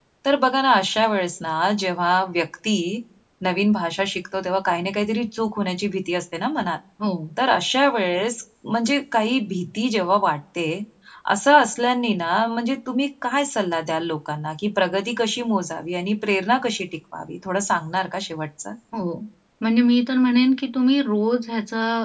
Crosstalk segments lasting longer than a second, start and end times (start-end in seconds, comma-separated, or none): none